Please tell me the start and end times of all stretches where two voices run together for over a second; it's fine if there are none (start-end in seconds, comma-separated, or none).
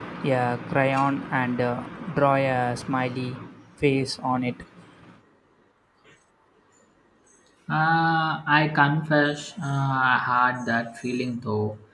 none